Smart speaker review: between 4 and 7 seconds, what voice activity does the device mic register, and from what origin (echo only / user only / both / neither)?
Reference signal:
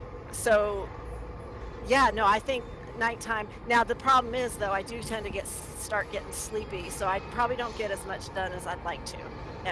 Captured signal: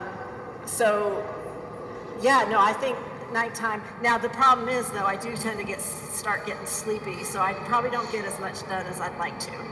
echo only